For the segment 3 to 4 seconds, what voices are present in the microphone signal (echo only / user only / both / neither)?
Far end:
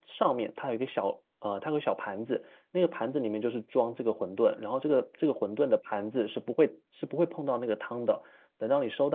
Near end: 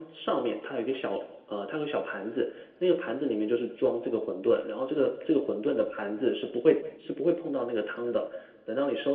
echo only